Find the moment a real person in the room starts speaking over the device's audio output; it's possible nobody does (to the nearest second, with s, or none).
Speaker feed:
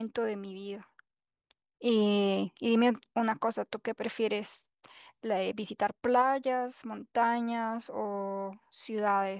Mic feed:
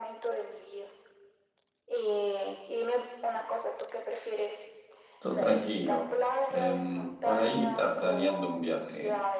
5 s